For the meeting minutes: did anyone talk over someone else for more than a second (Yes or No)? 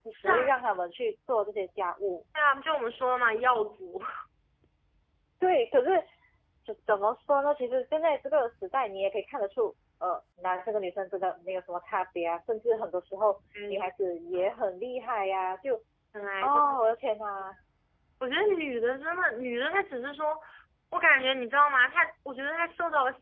No